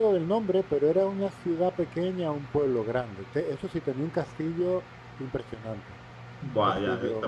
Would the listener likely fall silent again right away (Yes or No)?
No